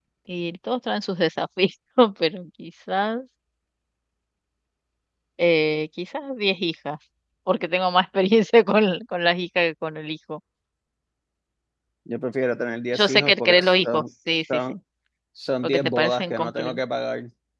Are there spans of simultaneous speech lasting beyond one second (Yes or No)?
Yes